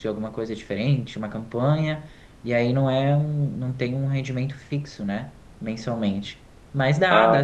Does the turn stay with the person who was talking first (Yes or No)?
Yes